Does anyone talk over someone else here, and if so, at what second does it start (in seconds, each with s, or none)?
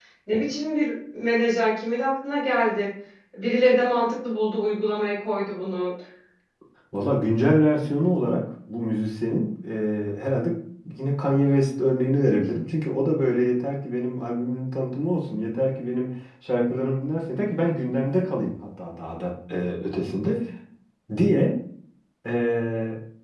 none